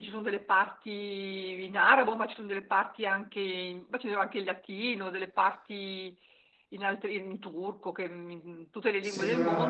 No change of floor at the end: No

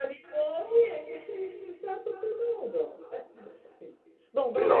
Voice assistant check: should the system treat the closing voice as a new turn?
No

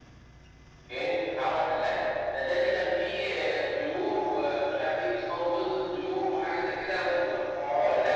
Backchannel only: No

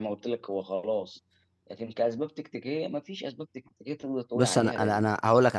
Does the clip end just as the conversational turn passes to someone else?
Yes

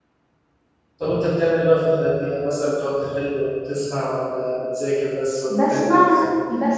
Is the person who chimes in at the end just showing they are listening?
No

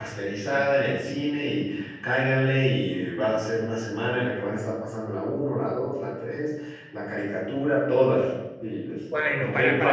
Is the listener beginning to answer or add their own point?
Yes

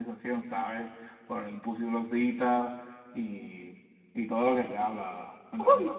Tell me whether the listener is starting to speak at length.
Yes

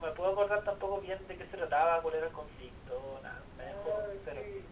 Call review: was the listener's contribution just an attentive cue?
No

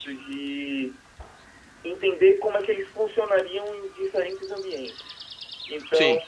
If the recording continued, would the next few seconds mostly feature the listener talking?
No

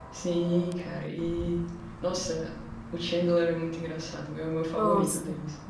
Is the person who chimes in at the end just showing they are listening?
No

